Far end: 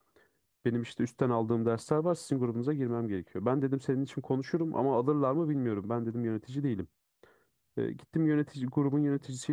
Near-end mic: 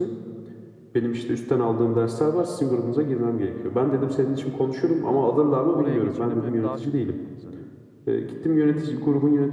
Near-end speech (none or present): present